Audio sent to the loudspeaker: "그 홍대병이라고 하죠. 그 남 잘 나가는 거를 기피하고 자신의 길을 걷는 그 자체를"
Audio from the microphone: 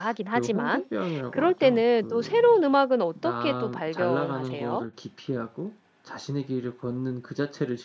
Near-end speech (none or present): present